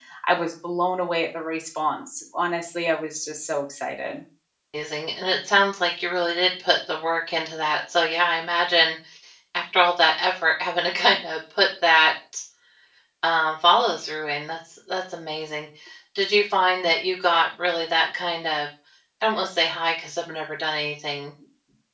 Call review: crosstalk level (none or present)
none